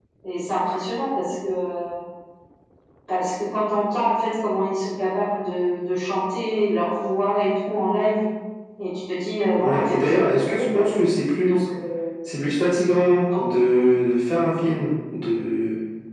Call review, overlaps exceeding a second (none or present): present